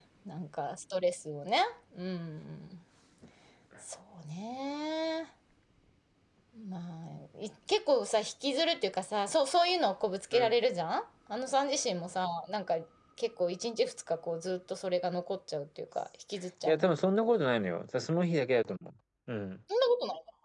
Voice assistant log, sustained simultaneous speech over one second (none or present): none